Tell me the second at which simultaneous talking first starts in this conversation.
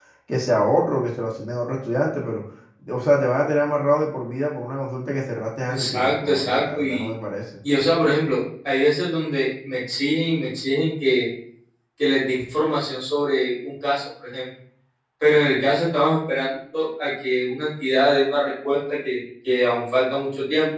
5.7 s

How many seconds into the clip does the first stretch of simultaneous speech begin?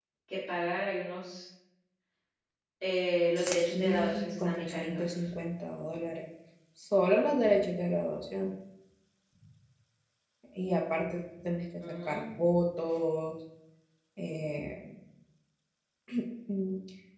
3.4 s

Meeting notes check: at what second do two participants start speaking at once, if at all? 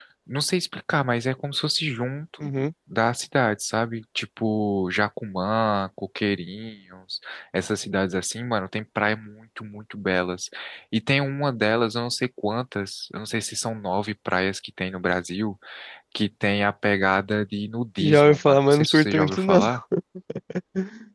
18.0 s

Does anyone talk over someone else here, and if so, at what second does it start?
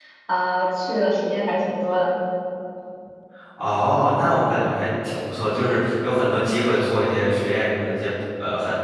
none

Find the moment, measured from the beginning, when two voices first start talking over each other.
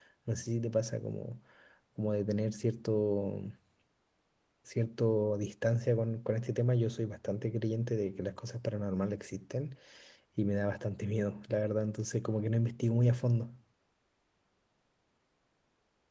none

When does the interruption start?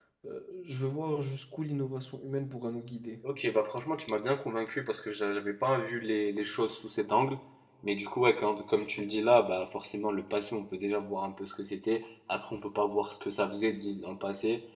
none

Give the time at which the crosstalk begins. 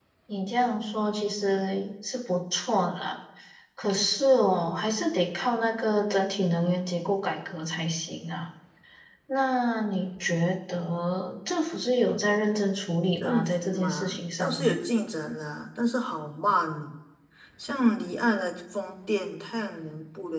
13.2 s

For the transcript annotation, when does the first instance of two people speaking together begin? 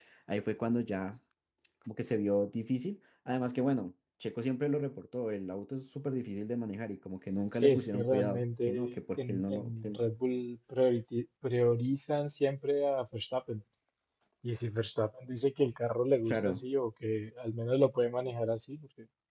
7.6 s

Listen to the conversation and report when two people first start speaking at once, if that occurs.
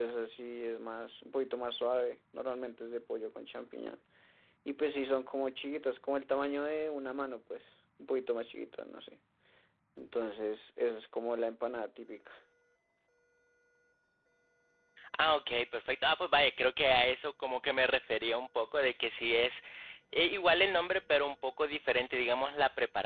none

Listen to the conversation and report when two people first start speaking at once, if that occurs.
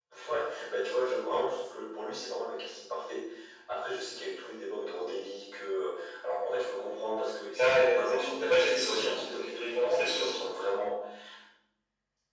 7.5 s

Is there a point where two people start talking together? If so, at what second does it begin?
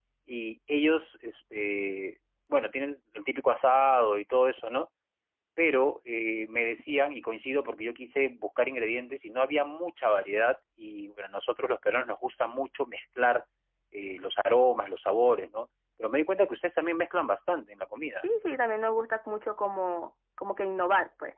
none

